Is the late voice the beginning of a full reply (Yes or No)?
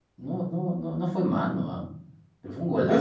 Yes